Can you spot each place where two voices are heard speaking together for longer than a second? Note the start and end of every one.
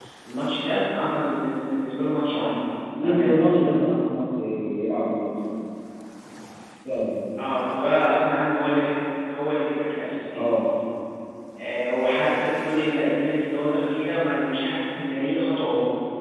none

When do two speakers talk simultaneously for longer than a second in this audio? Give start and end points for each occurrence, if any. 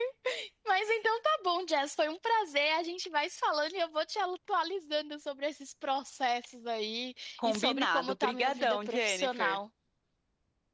7.5-9.6

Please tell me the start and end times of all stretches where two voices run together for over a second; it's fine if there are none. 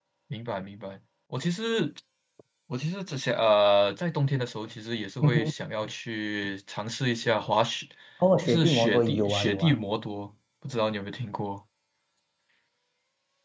8.4-9.8

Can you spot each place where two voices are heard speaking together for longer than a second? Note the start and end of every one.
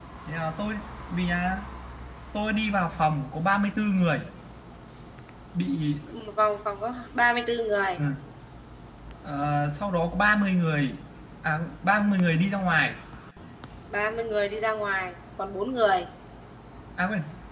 none

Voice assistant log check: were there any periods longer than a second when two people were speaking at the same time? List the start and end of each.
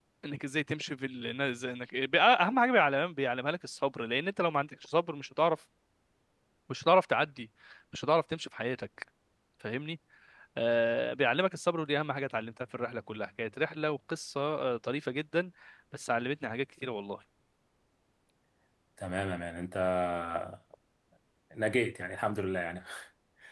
none

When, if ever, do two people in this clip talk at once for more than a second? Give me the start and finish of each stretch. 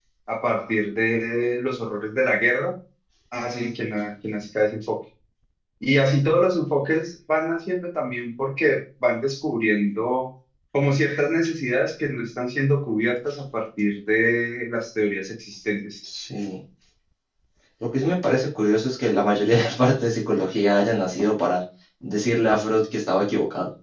none

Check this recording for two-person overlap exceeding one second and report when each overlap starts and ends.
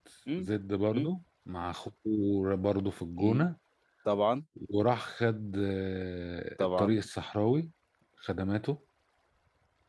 none

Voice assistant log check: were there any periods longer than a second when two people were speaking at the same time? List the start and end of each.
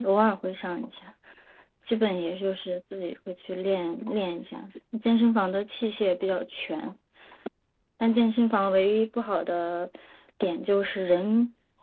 none

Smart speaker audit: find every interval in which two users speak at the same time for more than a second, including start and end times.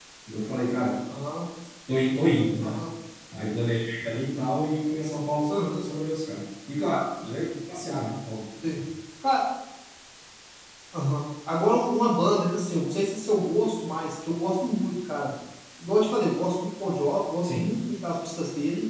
none

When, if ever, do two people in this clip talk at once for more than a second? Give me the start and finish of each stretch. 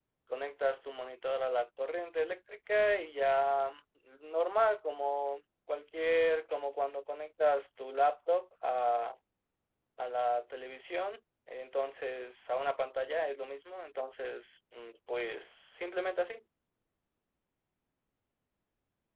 none

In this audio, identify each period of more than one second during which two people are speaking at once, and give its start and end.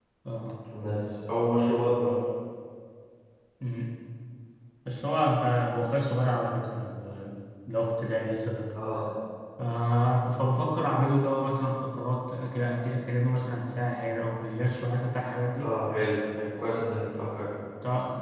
none

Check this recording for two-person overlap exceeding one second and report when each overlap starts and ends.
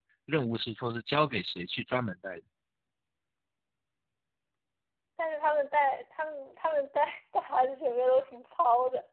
none

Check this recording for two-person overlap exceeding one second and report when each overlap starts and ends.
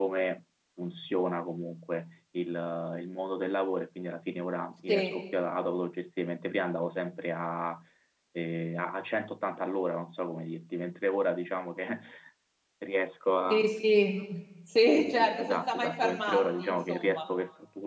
14.9-17.2

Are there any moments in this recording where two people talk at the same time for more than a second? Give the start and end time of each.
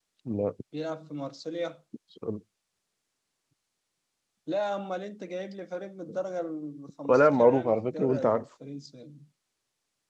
7.1-8.4

